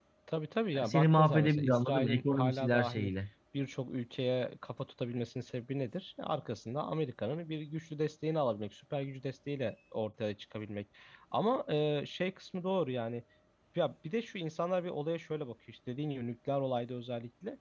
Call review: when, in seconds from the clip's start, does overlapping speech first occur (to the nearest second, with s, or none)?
1 s